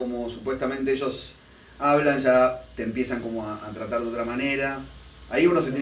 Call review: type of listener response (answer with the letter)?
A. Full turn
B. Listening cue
B